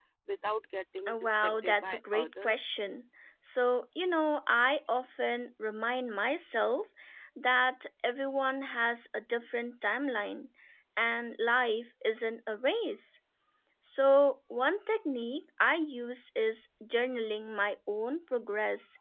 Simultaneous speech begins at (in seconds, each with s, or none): 1.1 s